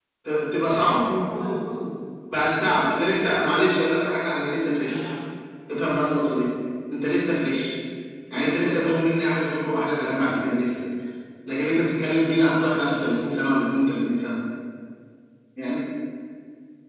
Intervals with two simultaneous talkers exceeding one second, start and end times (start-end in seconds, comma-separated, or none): none